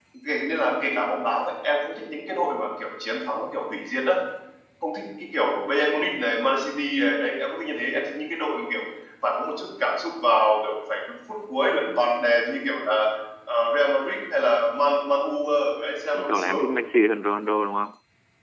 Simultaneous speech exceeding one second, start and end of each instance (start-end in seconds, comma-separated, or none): none